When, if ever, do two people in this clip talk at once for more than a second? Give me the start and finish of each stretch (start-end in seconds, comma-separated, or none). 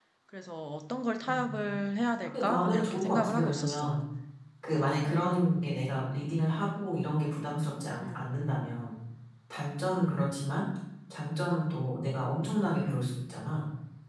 2.2-3.9